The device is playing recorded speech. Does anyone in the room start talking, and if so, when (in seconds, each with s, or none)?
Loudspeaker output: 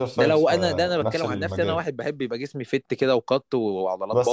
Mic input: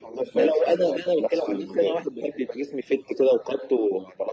none